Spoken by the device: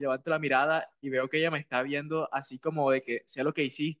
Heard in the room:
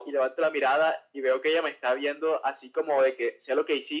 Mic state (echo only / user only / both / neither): echo only